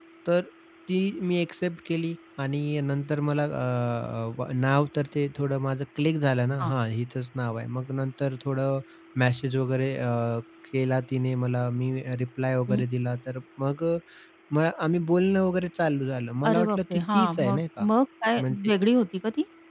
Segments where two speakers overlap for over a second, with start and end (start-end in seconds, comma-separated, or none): 16.5-17.9